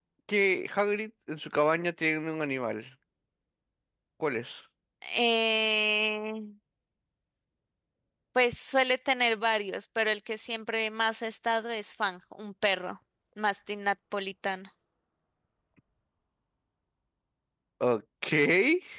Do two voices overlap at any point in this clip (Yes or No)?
No